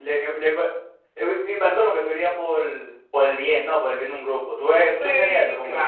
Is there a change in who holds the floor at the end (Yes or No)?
Yes